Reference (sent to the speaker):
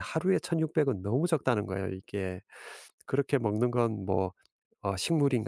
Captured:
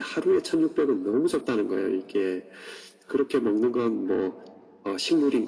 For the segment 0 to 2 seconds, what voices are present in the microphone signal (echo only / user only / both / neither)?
echo only